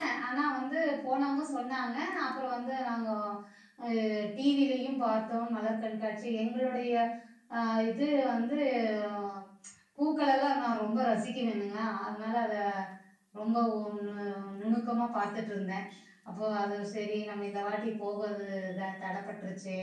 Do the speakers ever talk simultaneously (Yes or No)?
No